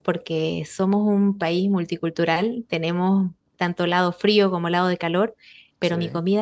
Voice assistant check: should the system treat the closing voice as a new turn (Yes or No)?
No